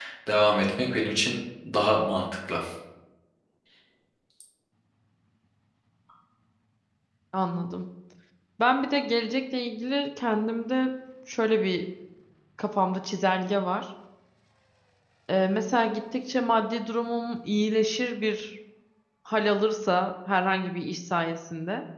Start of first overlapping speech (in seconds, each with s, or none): none